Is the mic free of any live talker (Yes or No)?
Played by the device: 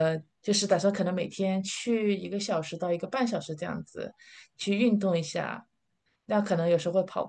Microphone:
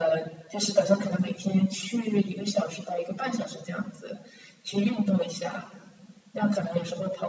Yes